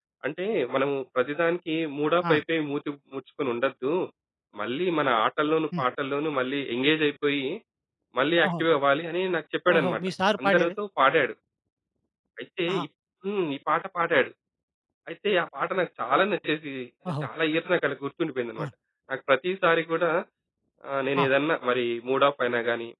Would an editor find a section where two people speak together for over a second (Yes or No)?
No